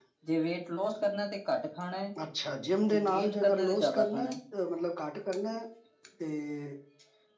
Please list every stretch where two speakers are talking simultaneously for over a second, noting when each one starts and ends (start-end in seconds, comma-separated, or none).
2.9-4.3